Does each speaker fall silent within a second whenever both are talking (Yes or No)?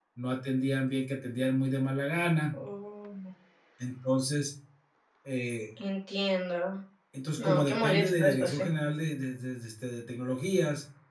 No